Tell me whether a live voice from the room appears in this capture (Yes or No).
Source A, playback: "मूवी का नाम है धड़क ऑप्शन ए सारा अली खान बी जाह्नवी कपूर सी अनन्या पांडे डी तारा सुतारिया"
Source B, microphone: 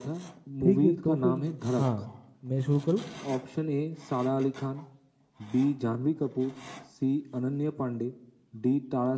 Yes